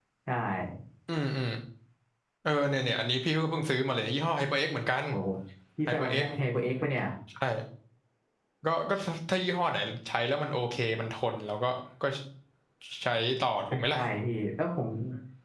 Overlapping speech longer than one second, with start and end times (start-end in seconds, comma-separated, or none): none